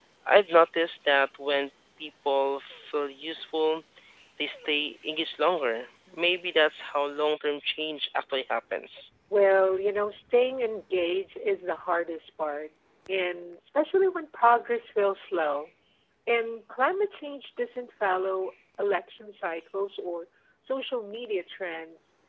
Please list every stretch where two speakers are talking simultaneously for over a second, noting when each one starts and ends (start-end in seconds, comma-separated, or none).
none